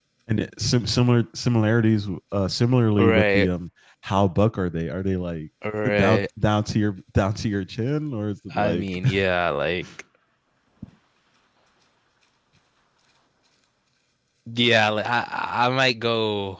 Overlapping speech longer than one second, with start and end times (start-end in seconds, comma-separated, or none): none